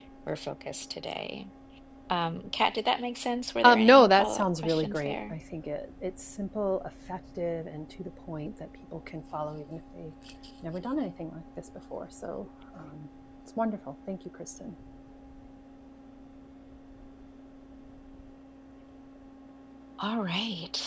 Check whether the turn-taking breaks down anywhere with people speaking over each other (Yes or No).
Yes